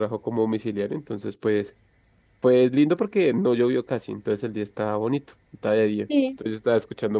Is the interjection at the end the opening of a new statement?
No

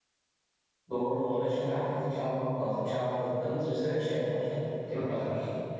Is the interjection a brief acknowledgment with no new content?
No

